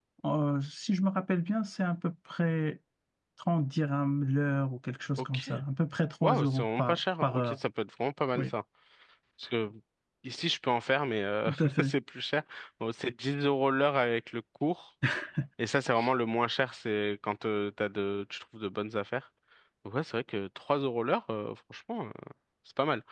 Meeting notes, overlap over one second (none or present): present